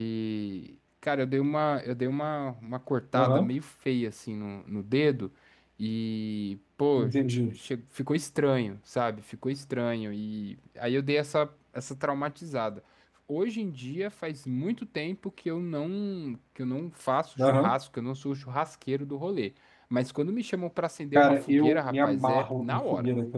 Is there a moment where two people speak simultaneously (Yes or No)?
Yes